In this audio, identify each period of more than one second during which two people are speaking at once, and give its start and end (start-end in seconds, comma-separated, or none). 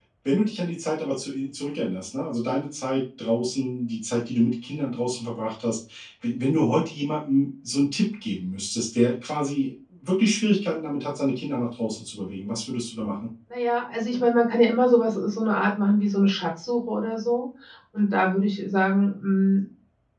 none